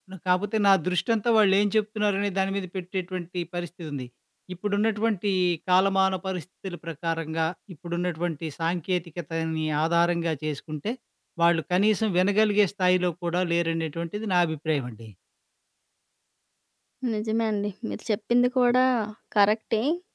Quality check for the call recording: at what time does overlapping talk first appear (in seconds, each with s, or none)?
none